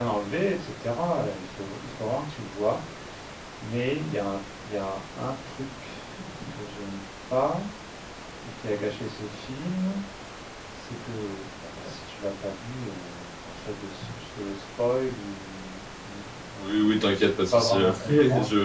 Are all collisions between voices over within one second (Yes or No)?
No